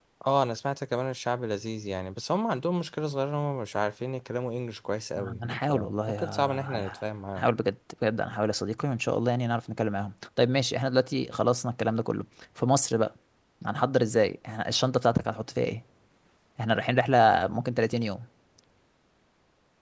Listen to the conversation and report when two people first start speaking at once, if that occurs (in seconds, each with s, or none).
5.2 s